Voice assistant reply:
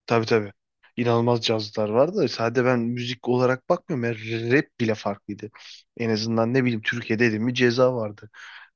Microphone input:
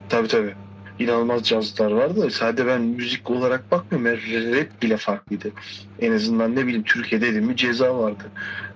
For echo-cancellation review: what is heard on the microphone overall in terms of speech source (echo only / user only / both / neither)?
echo only